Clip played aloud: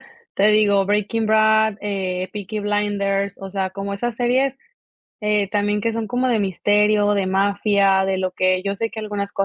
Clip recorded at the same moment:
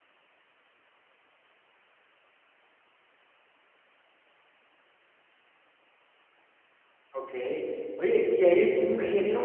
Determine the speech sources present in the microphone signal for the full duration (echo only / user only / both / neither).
user only